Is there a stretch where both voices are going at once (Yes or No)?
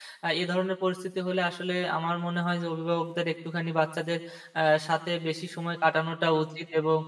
No